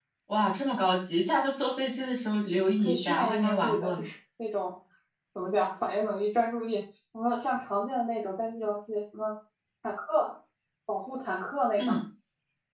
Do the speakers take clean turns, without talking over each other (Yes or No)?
No